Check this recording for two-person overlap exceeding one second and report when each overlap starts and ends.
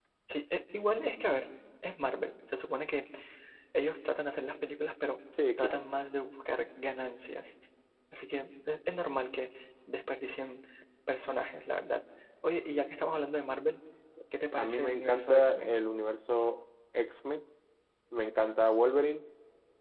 14.6-15.8

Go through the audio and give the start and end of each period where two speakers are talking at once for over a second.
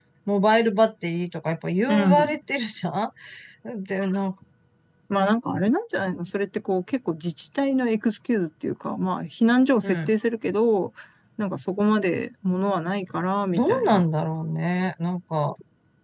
none

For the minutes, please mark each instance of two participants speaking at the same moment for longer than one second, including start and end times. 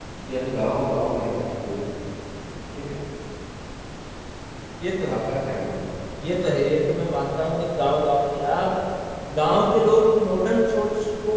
none

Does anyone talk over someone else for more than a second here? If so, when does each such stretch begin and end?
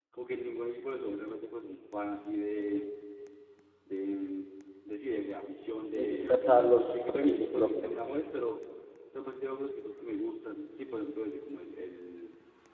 5.9-7.9

